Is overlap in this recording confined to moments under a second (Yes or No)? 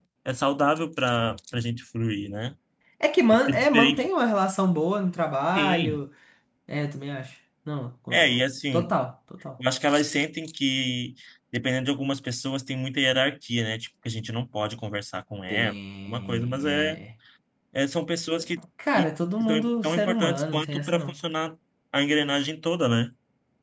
No